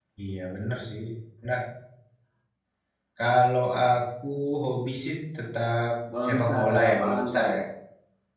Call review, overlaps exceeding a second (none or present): present